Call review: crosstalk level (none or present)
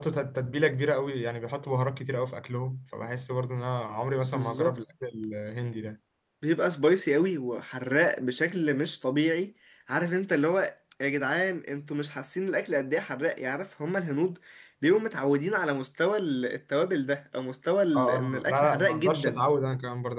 present